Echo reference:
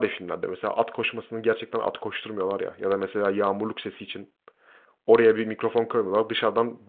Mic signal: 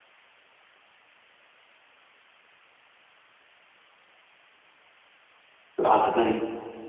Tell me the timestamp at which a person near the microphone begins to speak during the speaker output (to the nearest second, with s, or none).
6 s